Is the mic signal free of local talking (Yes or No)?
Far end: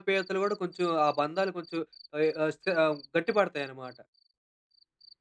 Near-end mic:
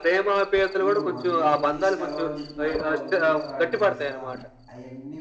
No